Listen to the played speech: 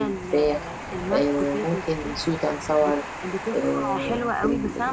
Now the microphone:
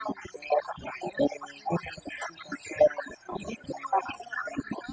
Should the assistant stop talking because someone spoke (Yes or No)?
No